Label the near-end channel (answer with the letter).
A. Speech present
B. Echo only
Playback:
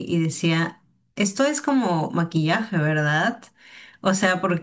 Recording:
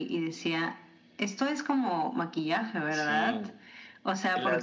A